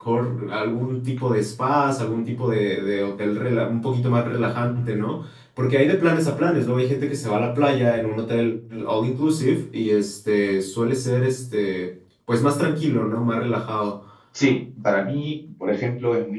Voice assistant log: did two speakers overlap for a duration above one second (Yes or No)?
No